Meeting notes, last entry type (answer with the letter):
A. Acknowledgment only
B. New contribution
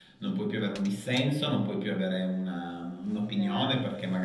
A